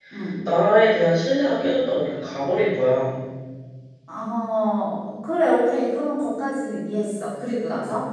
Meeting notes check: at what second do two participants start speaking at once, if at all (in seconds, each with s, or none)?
none